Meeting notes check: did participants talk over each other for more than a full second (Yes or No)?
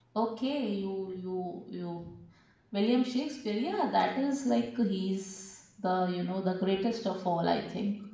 No